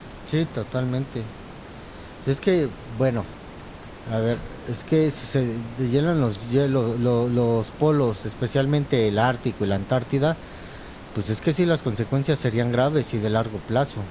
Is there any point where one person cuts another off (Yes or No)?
No